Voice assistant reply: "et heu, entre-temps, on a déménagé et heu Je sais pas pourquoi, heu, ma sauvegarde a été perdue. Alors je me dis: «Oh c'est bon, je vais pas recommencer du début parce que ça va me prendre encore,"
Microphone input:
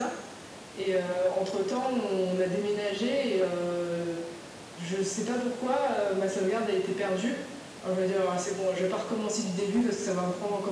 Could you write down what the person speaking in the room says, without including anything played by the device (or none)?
none